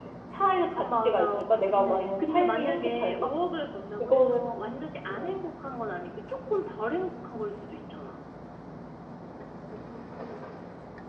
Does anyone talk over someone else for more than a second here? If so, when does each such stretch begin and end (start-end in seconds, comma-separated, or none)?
0.8-3.1